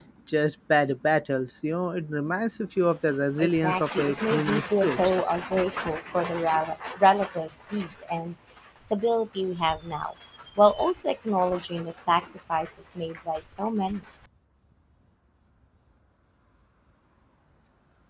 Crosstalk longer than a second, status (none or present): present